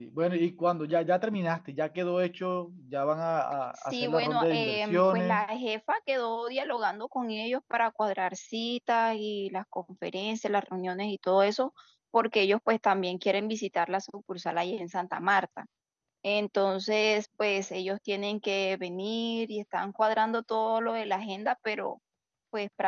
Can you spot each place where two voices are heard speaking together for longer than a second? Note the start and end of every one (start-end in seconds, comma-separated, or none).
3.9-5.5